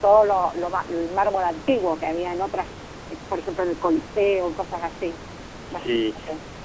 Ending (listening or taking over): taking over